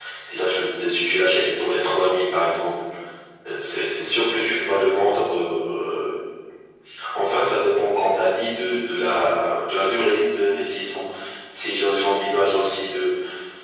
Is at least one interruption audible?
No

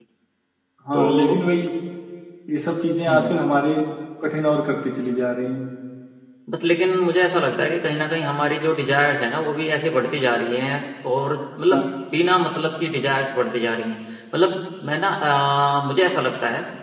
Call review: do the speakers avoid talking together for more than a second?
Yes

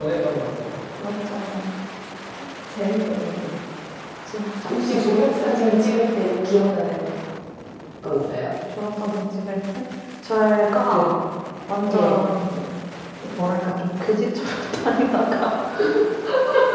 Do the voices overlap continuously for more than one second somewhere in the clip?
No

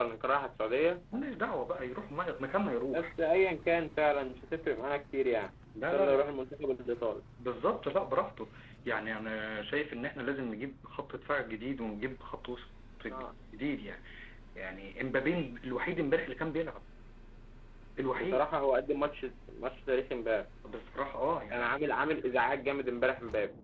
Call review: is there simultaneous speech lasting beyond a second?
No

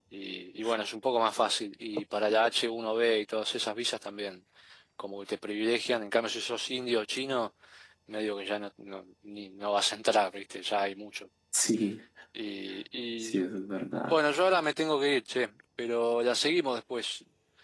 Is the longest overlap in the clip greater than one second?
No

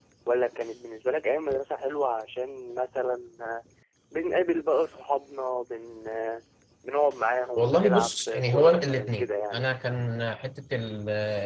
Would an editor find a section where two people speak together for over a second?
Yes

